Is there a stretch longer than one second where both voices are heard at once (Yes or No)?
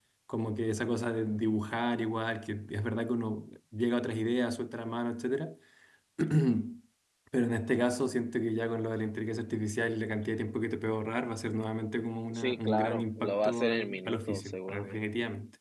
Yes